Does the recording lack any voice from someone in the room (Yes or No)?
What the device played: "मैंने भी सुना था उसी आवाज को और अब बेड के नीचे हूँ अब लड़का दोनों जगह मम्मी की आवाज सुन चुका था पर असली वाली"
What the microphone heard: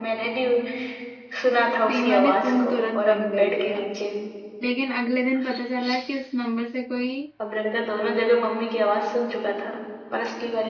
No